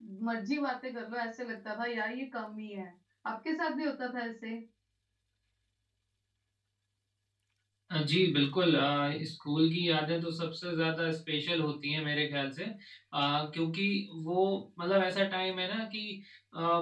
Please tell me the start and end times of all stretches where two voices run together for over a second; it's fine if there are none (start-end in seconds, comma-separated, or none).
none